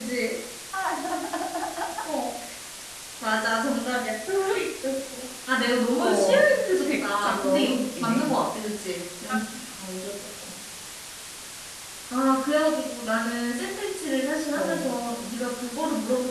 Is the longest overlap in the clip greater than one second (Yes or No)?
Yes